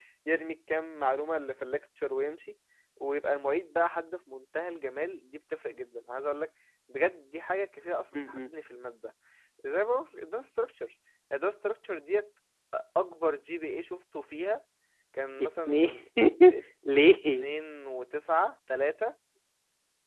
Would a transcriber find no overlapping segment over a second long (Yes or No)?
Yes